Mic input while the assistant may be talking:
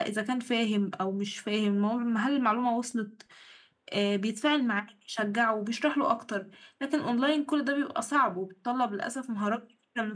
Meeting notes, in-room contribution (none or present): none